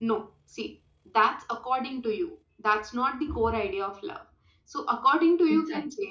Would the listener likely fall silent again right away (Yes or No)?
Yes